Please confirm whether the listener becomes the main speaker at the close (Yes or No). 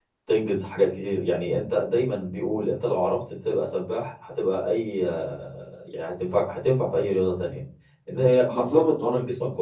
No